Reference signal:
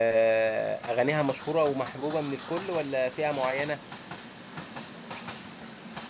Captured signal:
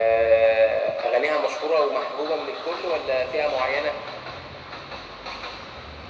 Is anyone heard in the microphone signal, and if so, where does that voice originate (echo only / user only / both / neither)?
echo only